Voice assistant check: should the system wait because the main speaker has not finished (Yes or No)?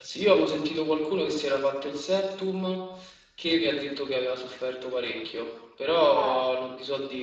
Yes